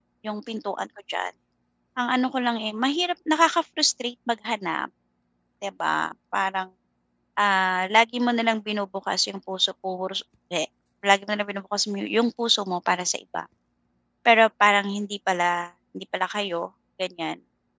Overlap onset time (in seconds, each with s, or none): none